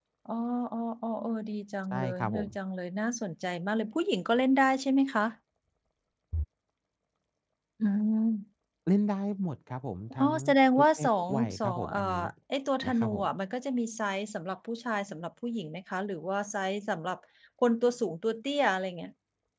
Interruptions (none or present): present